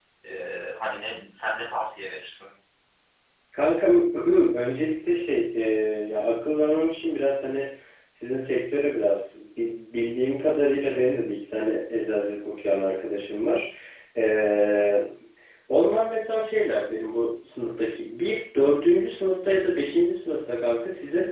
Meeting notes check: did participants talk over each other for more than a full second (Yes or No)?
No